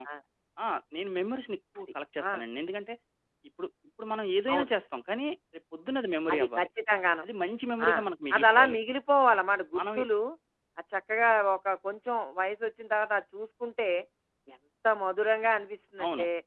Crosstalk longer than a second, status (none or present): none